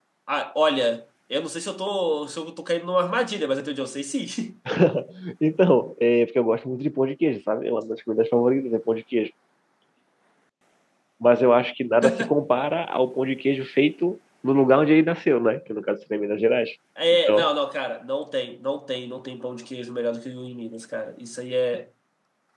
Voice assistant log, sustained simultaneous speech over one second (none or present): none